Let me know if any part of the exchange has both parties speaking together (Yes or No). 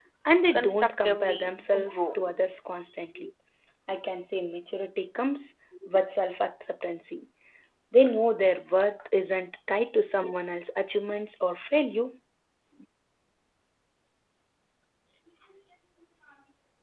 Yes